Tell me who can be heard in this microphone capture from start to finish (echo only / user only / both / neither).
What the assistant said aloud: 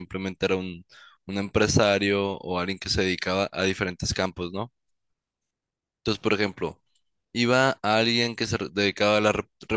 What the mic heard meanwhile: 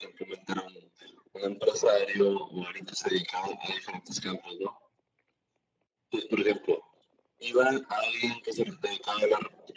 echo only